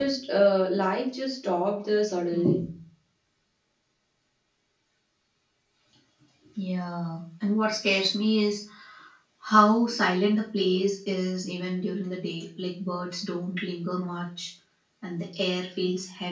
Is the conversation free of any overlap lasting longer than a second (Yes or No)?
Yes